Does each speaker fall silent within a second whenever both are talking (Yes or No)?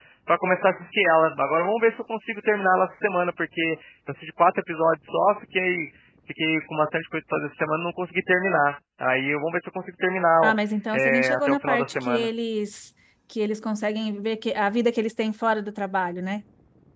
No